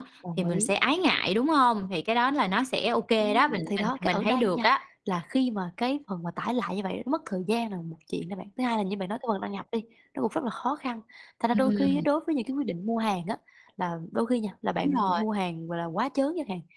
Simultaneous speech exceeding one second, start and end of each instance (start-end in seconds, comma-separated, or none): 3.2-4.7